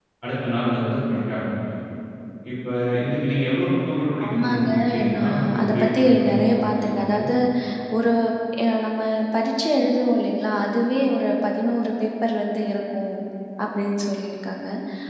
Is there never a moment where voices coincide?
No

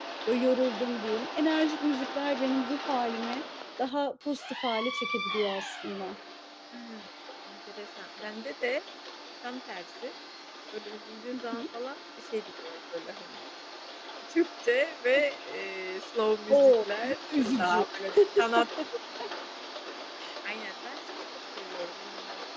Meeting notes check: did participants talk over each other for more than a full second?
Yes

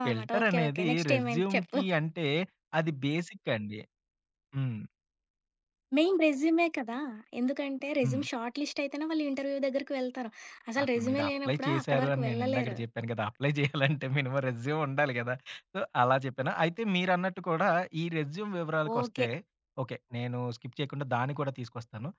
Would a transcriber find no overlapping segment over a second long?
No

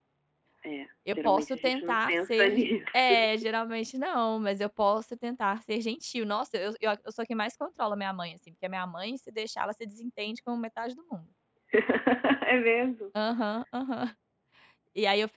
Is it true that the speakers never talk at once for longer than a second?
No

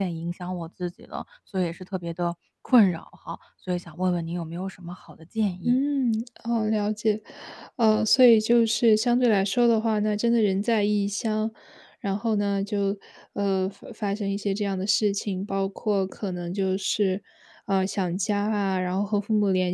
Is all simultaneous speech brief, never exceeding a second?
Yes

